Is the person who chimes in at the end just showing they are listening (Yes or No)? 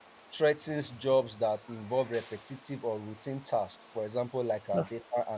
Yes